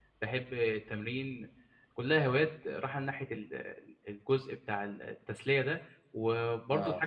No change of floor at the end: Yes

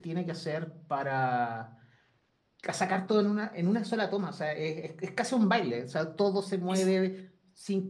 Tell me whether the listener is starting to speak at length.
No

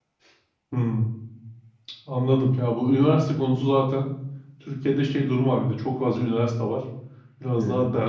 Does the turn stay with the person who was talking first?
Yes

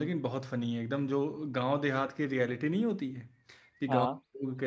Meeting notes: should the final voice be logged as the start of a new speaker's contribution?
No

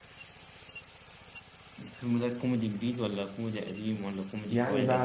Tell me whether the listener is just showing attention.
No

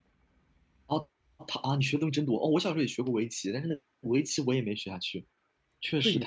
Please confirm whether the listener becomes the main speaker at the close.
Yes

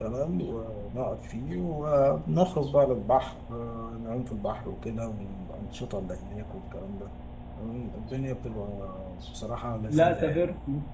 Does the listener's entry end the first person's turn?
Yes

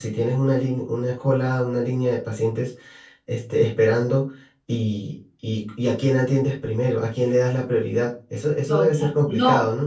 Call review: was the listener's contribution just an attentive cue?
No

